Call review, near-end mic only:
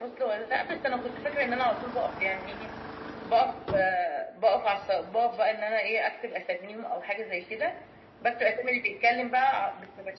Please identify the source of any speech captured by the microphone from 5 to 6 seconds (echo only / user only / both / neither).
echo only